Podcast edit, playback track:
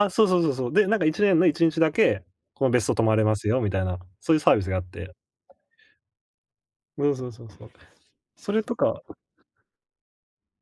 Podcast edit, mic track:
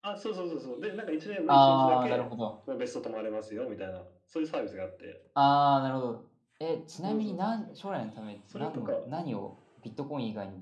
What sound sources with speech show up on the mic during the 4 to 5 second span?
echo only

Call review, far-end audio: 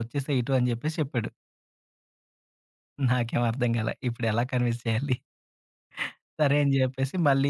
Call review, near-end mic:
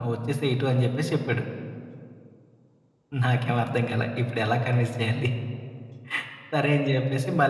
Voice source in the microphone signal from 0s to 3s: echo only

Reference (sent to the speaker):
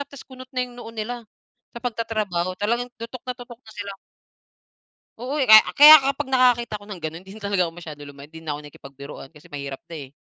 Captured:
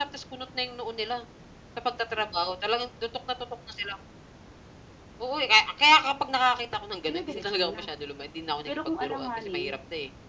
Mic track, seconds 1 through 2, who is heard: echo only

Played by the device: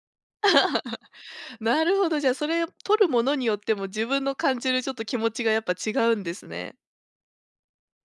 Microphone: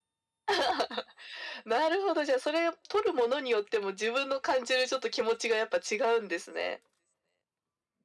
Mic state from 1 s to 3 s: echo only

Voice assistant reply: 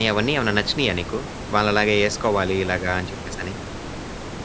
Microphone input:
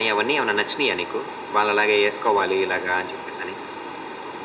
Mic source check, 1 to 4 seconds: echo only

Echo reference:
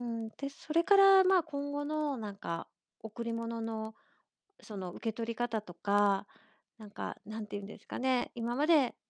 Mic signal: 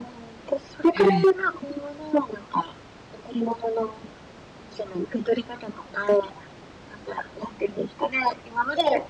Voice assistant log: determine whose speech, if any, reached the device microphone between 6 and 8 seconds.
echo only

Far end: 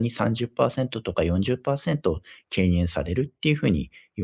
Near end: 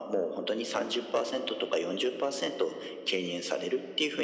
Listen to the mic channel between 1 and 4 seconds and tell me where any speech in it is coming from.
echo only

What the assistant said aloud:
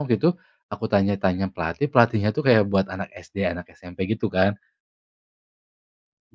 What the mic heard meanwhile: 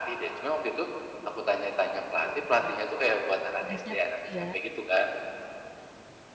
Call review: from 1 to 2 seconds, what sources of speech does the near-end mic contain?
echo only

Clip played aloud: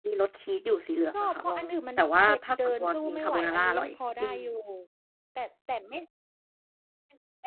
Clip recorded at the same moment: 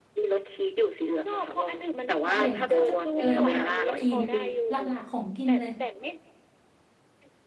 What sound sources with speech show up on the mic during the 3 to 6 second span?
both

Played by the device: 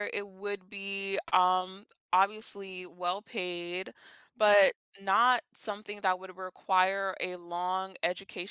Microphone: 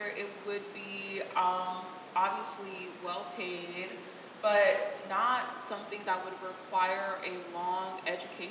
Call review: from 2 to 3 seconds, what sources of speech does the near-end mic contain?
echo only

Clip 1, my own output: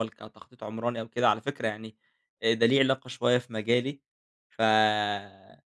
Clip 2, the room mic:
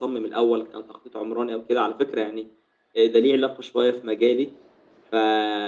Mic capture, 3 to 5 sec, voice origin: echo only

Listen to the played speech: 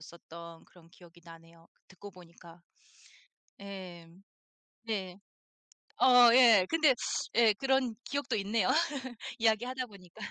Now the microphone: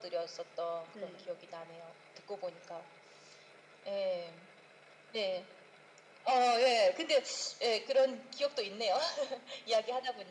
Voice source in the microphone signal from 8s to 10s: echo only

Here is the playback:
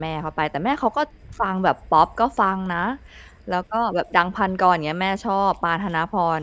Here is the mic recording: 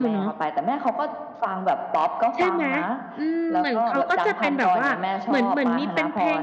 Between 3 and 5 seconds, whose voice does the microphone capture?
both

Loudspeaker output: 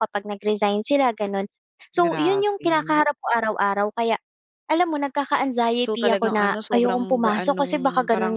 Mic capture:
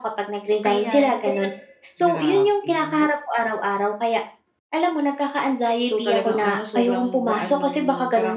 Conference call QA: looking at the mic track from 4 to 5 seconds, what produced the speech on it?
echo only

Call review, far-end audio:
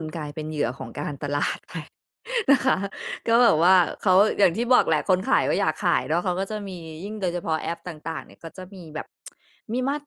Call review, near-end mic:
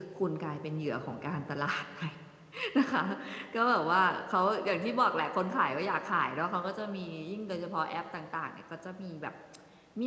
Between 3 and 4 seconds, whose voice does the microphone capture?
echo only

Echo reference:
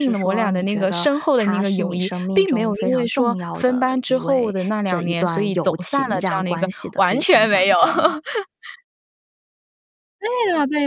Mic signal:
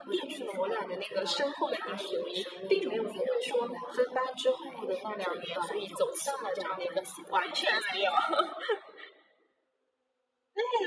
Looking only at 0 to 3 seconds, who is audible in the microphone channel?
echo only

